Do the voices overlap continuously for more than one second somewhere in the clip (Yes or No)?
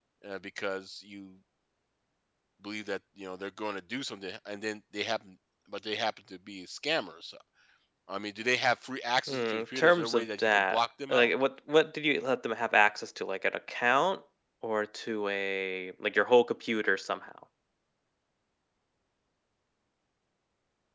Yes